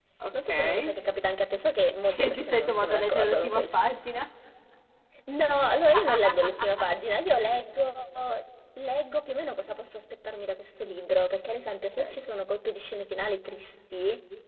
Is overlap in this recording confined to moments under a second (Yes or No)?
No